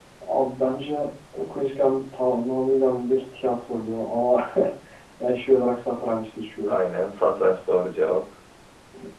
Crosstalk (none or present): none